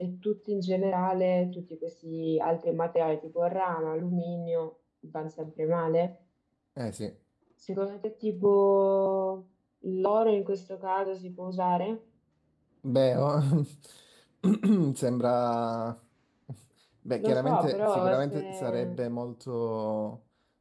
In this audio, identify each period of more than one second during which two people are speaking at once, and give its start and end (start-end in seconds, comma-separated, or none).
17.2-19.0